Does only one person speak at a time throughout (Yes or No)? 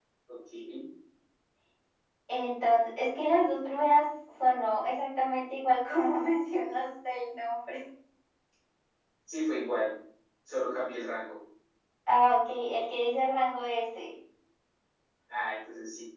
Yes